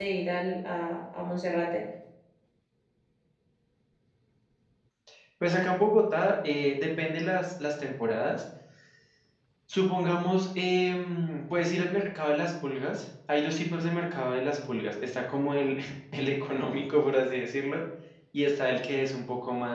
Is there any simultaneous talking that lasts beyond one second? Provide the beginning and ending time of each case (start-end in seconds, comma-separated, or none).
none